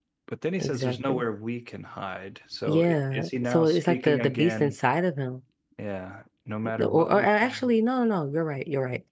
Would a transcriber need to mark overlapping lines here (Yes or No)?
Yes